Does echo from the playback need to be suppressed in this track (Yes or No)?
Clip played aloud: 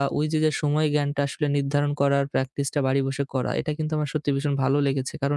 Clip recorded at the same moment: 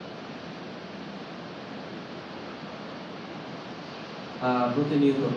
No